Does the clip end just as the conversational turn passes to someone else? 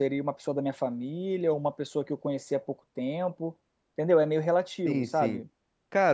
Yes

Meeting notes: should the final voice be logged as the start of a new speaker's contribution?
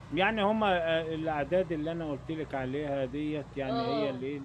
No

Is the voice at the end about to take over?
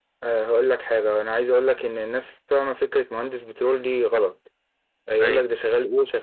No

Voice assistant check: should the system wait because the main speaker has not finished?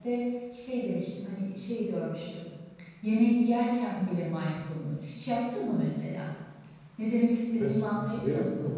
No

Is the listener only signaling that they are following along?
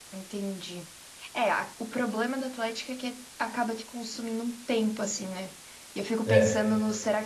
Yes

